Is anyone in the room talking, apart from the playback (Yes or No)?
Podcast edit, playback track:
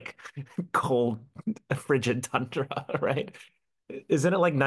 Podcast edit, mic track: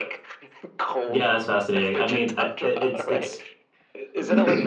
Yes